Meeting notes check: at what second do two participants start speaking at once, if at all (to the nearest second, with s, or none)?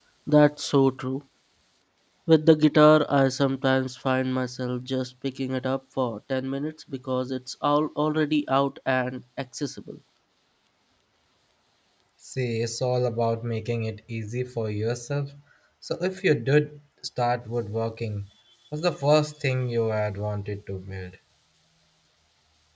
none